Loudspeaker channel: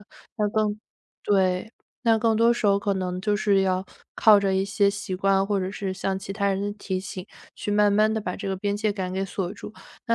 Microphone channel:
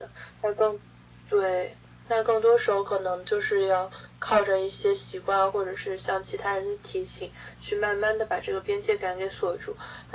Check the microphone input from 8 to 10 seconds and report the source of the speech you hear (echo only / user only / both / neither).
echo only